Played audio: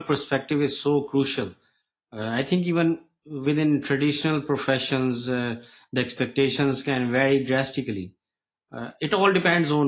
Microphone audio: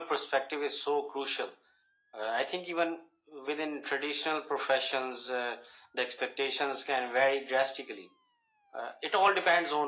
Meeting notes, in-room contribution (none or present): none